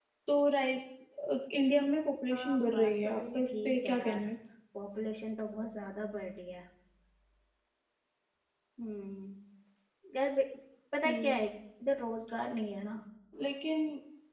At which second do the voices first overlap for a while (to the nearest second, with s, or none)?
2 s